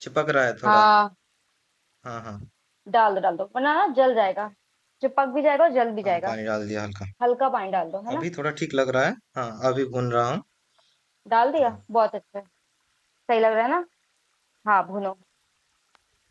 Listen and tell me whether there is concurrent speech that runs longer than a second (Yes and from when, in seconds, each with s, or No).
No